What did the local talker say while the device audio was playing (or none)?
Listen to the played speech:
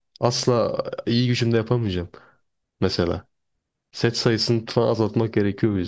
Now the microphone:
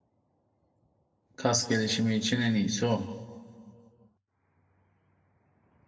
Kas gelişimi için en iyisi o.